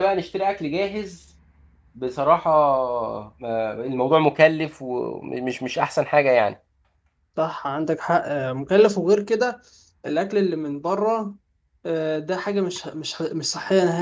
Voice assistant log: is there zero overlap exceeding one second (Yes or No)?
Yes